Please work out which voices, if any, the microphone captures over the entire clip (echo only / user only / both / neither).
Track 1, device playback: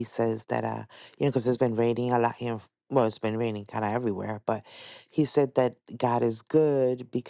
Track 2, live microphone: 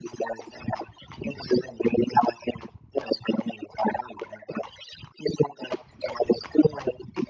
echo only